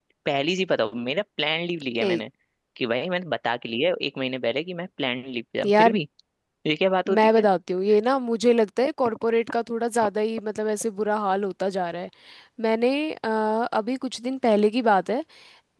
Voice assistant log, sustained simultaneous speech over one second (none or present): none